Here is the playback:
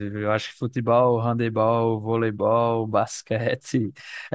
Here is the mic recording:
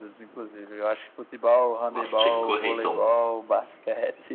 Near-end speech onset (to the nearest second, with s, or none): 2 s